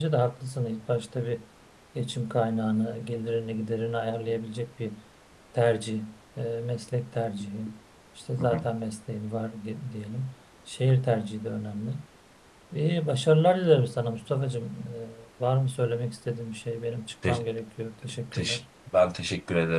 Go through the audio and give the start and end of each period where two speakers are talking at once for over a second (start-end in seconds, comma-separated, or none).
none